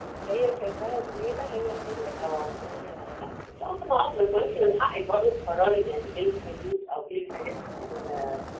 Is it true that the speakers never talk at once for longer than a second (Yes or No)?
Yes